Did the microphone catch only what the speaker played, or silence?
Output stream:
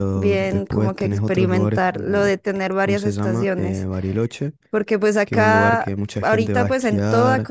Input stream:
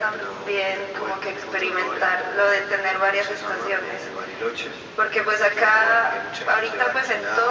Yes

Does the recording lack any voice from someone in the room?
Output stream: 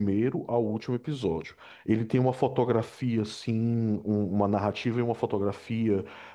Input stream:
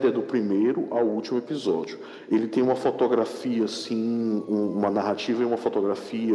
Yes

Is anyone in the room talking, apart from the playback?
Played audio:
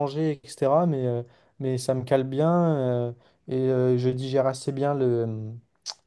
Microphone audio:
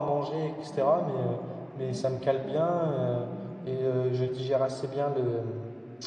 Yes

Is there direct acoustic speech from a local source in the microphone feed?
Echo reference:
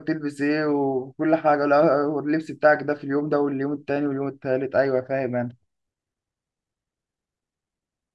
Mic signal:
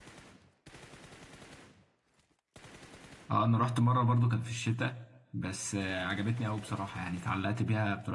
Yes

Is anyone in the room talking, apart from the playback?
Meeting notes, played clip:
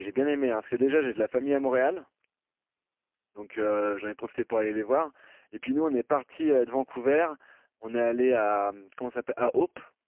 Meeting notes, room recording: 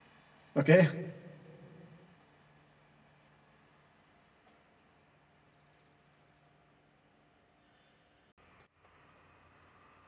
Yes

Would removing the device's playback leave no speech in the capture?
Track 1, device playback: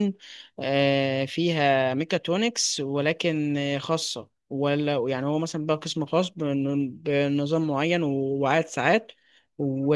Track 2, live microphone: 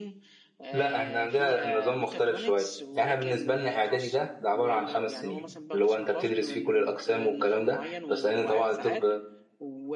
No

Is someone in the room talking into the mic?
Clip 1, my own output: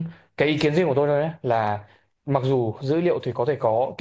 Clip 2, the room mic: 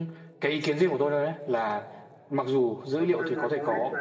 Yes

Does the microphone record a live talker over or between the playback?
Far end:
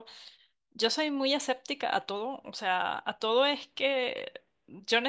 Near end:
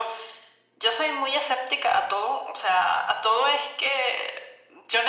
No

